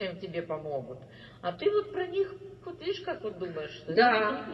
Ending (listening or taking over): taking over